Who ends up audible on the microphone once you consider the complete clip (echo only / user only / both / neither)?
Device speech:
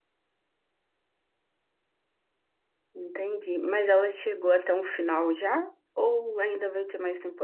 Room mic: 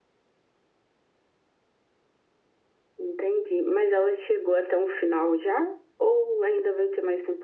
echo only